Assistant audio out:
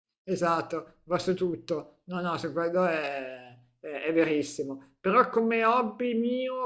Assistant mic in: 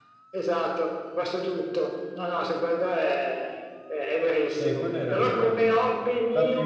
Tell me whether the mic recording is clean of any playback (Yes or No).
No